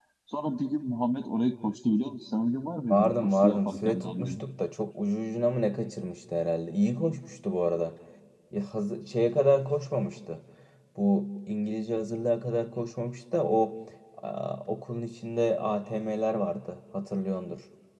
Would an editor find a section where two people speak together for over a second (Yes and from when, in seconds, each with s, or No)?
Yes, from 2.9 s